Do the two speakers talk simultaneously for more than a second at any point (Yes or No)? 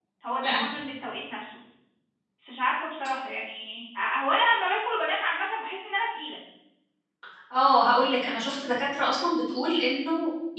No